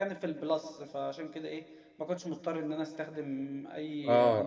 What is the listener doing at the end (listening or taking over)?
taking over